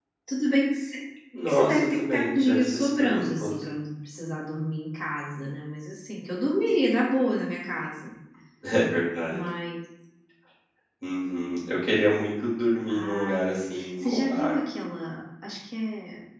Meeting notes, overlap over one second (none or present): present